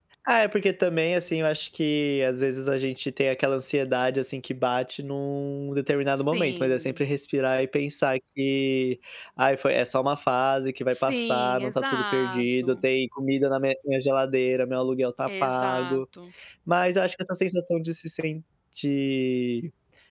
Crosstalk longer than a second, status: present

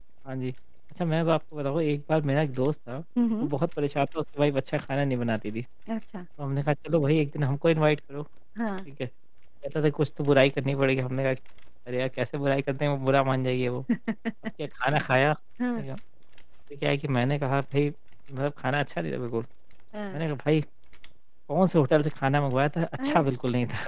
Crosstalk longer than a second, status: none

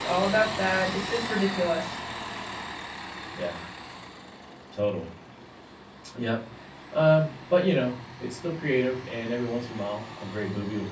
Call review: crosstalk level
none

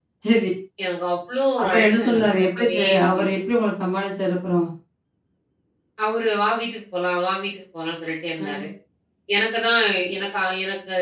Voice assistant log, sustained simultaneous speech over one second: present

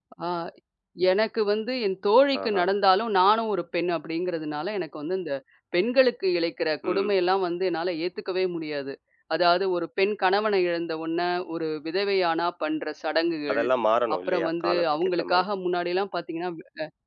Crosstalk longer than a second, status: present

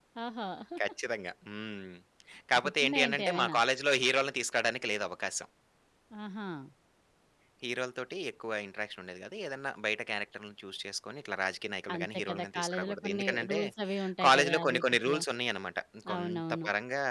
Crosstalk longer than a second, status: present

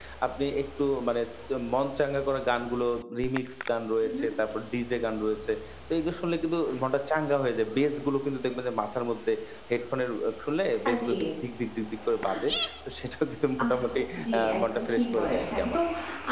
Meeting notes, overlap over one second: present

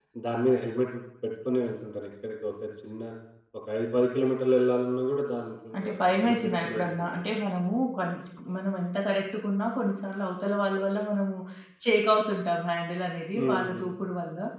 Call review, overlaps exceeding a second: present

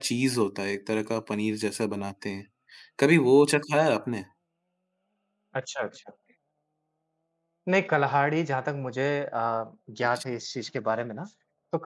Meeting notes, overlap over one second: none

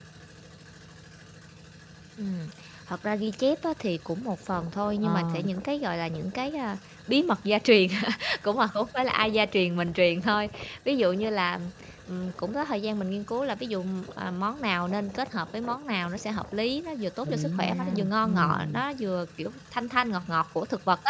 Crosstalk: present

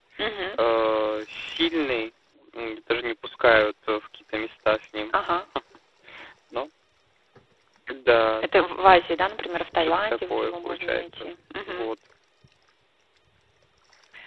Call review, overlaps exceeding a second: present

